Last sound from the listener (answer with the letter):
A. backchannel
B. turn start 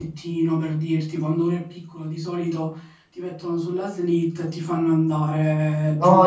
B